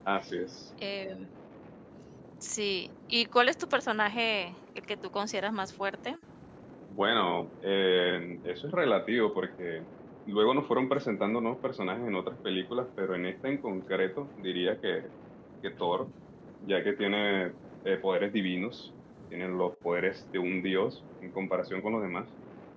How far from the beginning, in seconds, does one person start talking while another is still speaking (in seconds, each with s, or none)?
none